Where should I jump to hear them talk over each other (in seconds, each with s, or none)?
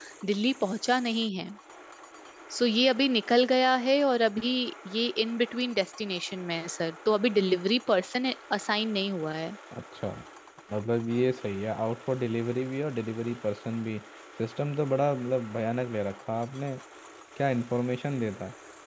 none